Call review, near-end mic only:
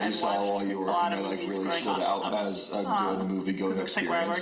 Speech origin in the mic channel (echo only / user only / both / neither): echo only